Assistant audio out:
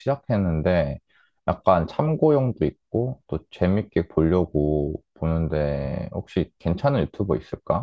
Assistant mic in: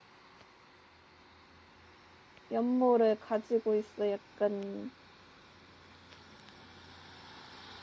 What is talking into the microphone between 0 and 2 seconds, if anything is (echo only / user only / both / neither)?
neither